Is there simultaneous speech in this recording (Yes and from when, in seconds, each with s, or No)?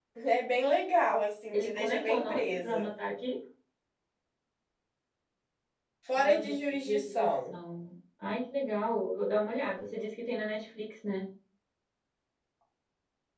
Yes, from 1.5 s